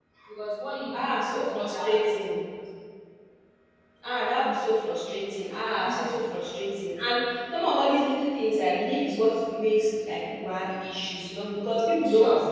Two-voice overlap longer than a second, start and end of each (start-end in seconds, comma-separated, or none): 0.9-2.2